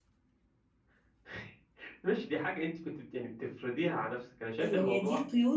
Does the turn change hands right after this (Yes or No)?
Yes